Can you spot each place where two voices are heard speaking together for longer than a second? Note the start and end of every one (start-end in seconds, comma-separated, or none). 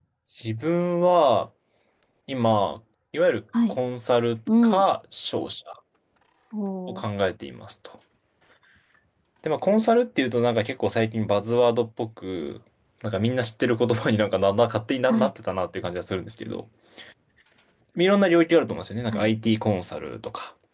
none